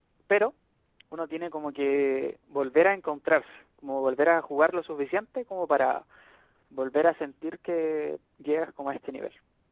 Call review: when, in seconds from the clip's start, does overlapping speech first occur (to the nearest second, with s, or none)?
none